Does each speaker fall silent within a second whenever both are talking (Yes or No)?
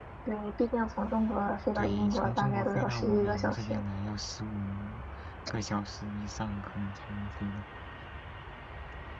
No